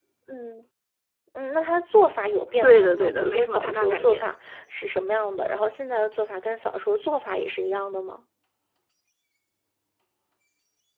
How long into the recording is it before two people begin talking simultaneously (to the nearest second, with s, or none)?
3 s